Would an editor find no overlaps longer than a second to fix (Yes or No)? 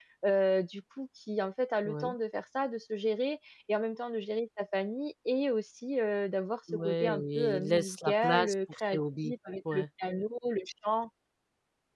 No